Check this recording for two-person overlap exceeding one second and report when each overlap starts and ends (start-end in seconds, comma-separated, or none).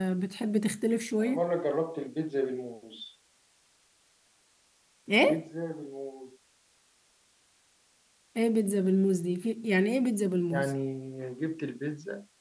none